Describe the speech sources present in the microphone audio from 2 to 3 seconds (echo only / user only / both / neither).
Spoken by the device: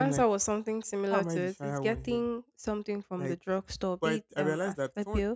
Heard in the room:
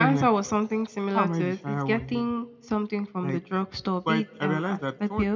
echo only